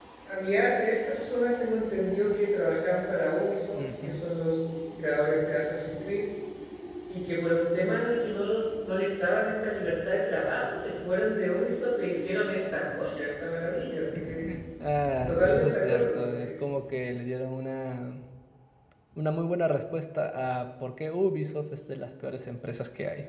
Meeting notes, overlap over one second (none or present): present